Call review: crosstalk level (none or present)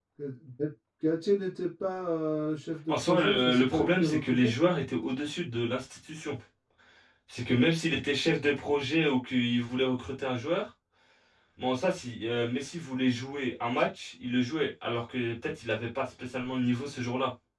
present